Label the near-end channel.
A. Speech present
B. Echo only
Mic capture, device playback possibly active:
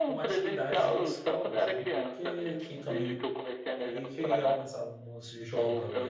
A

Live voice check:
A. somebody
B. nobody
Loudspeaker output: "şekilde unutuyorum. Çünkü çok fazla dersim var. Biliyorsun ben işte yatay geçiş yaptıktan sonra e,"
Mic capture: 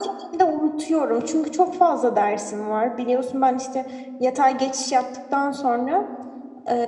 B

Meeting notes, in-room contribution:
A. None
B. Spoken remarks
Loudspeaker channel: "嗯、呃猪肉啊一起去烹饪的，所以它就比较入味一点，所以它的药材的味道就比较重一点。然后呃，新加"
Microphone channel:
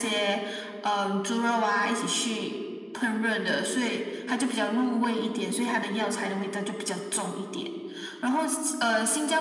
A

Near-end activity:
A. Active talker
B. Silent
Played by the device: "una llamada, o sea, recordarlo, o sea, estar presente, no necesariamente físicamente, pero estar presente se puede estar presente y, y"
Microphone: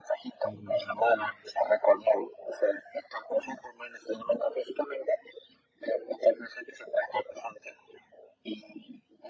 A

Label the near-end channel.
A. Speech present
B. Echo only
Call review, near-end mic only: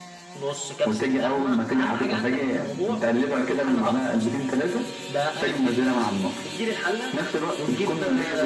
B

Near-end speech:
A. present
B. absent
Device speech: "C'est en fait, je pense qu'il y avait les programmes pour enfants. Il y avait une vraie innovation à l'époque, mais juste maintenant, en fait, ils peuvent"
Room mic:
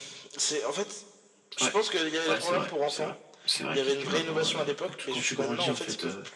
A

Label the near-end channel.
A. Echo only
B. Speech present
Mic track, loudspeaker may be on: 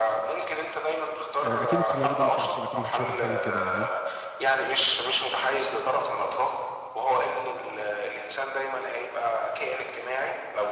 B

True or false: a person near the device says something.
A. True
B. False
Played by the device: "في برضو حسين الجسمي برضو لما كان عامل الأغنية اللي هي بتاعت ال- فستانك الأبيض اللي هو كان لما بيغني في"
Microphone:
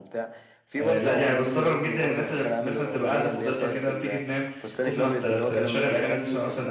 A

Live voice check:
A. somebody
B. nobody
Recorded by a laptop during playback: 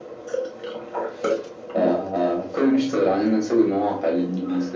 B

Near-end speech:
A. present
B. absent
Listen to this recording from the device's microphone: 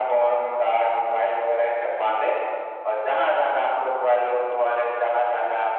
B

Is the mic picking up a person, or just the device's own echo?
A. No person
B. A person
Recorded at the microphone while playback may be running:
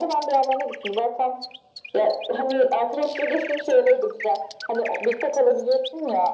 A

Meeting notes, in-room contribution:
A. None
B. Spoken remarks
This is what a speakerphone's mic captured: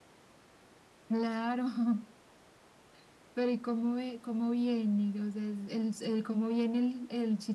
A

